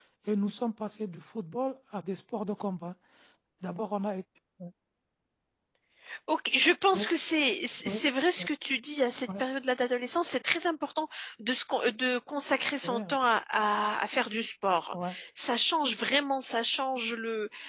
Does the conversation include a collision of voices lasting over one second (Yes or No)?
No